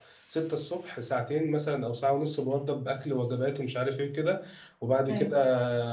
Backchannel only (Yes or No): Yes